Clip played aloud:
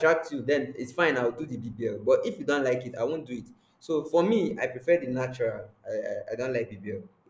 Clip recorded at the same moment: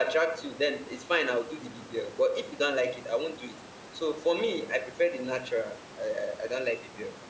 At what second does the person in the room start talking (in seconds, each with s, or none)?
none